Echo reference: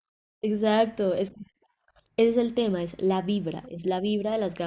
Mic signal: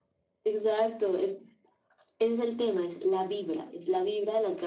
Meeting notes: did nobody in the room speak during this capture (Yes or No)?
Yes